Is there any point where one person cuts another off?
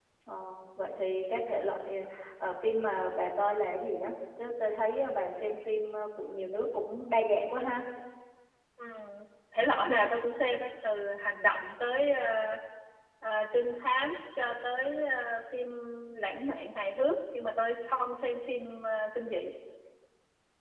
No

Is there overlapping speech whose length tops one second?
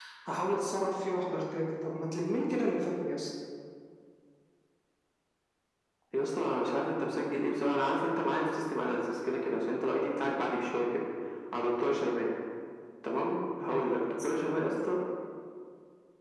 No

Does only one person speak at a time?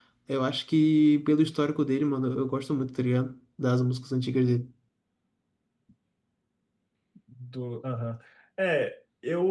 Yes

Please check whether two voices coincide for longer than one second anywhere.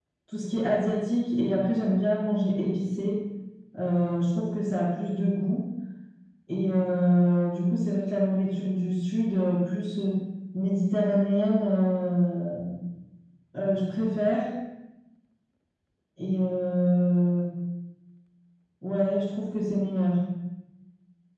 No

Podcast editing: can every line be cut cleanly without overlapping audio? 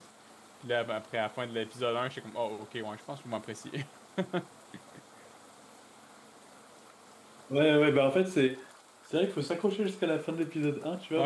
Yes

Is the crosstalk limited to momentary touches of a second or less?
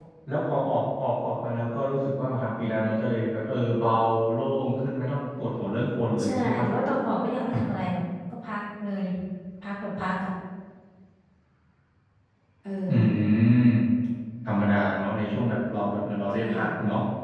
Yes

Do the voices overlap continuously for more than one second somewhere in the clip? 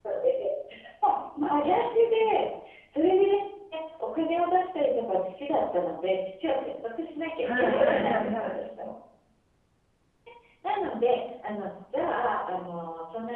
Yes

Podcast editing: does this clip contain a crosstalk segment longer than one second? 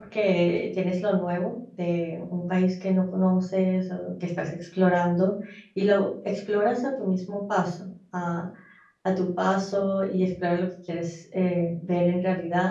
No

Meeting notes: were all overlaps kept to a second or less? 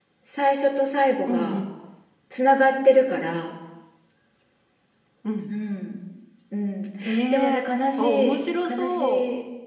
No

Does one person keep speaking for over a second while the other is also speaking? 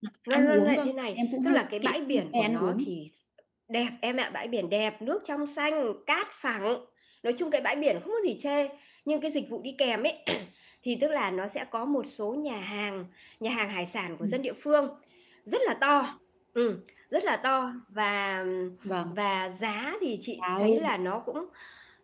Yes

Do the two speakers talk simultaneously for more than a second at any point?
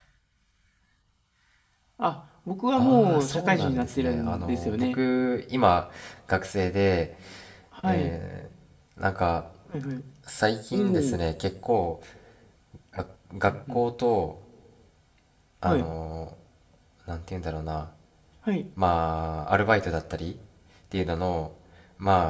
Yes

